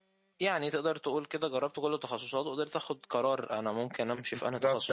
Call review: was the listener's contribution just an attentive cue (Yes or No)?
No